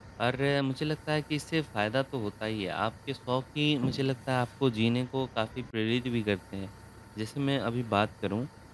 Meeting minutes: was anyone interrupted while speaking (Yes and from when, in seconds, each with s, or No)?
No